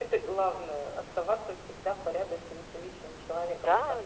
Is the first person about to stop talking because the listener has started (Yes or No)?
Yes